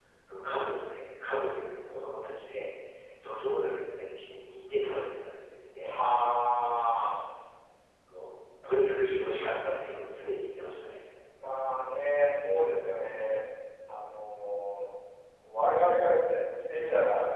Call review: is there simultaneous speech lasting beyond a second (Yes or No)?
No